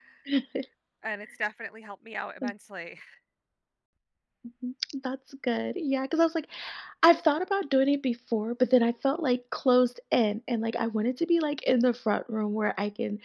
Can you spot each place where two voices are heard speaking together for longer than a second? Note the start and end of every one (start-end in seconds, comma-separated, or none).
none